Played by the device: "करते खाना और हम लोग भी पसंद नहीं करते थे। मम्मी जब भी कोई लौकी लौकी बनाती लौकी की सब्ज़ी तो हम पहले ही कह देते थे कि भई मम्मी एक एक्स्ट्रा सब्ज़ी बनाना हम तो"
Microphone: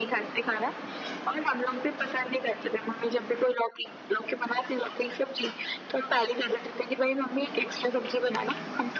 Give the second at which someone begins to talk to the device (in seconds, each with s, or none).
none